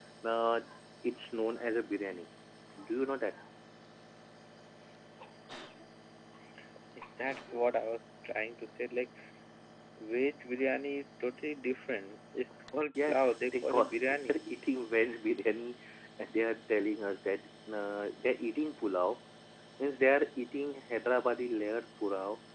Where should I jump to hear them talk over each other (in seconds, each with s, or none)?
12.9 s